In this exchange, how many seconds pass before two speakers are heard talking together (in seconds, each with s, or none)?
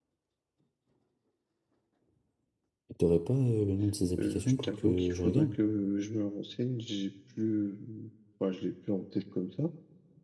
4.2 s